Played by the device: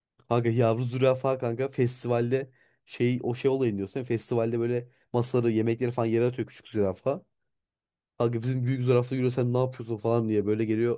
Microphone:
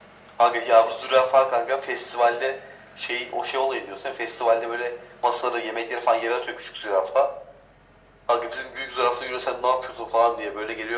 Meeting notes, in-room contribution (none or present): none